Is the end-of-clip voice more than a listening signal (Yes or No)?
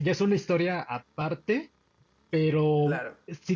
No